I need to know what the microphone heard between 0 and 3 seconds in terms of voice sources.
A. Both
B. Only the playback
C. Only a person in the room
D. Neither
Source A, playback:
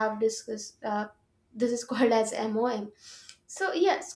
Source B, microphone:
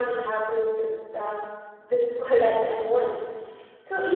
B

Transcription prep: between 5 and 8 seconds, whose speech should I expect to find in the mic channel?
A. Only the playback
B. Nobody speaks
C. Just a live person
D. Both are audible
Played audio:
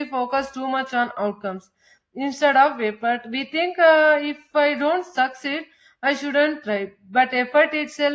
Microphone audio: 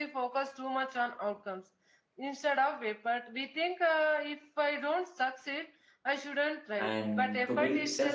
D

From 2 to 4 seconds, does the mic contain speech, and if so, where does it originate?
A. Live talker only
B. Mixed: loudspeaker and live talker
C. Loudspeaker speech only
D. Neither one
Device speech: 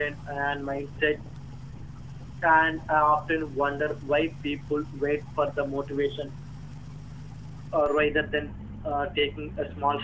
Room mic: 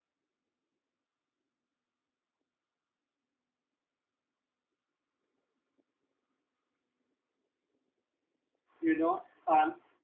D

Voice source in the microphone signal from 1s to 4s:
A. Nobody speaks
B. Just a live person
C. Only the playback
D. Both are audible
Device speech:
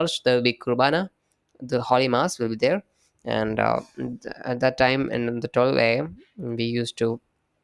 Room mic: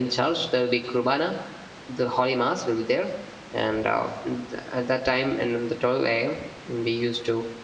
C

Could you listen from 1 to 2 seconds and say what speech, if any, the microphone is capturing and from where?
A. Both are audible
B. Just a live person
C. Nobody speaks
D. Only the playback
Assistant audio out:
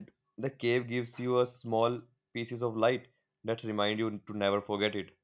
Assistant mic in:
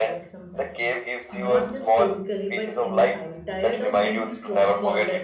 A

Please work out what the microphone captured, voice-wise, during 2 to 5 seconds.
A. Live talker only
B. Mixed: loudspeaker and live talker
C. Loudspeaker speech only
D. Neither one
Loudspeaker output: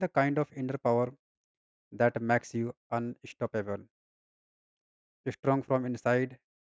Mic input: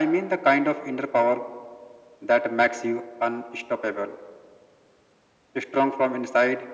C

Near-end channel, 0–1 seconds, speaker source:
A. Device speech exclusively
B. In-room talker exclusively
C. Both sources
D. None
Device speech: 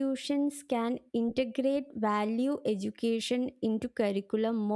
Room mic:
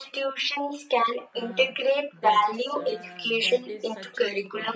A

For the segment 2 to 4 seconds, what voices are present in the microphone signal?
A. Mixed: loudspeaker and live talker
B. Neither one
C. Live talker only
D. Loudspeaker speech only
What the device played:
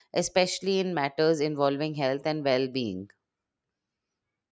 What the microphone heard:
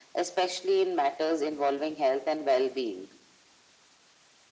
D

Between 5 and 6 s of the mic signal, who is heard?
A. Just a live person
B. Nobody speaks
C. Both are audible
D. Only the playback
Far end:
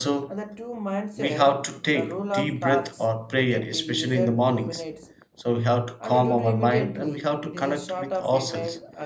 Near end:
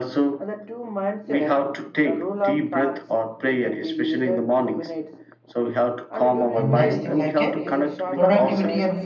D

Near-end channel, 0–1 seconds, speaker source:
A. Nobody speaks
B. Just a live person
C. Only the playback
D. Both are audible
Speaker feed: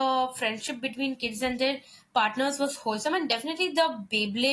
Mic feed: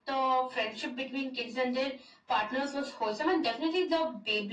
C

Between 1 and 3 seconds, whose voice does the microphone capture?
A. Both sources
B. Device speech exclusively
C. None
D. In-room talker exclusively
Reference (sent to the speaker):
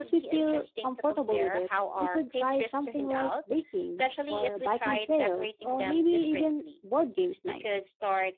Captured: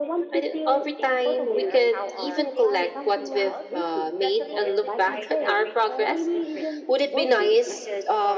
A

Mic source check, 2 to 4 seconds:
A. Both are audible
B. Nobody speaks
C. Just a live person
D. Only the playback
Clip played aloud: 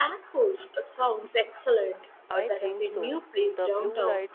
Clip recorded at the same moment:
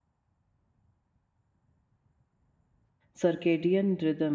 C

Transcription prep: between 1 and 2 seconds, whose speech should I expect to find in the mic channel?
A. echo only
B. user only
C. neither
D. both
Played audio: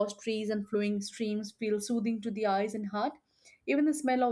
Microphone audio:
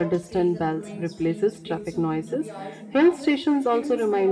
D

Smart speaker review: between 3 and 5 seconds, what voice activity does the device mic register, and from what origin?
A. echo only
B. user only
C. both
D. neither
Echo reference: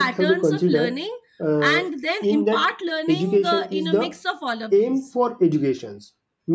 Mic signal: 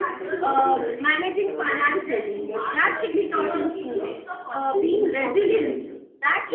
C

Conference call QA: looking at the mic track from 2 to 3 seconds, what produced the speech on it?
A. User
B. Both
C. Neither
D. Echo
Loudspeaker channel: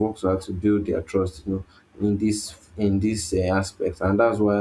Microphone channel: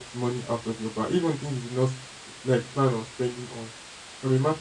A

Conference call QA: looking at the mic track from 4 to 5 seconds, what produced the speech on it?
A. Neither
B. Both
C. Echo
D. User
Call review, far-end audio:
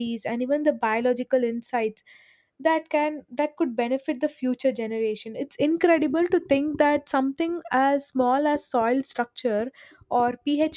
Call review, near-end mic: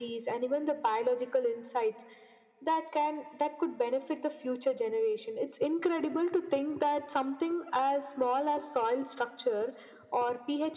C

